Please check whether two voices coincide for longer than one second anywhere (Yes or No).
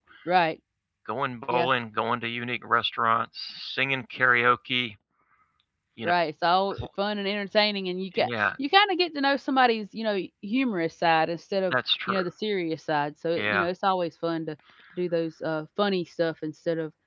No